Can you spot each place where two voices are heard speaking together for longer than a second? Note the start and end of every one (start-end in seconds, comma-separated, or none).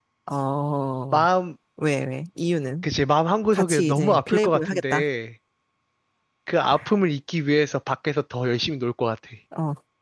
3.5-5.0